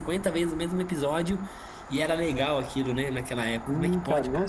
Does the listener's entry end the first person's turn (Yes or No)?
Yes